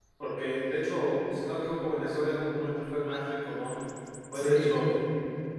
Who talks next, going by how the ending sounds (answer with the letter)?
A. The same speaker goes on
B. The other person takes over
A